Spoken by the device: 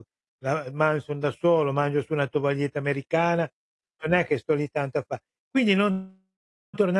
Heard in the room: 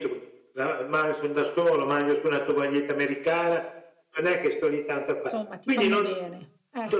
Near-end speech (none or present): present